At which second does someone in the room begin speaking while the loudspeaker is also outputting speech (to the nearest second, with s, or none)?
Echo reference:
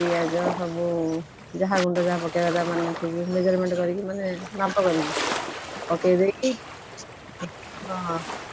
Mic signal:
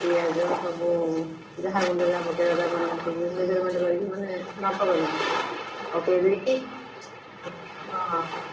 none